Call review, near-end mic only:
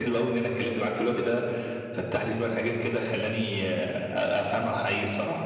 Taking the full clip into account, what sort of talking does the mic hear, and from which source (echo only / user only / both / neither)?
echo only